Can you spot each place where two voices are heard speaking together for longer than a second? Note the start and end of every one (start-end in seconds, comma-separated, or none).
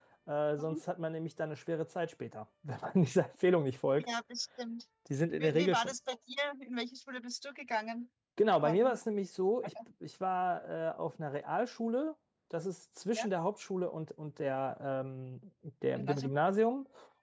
none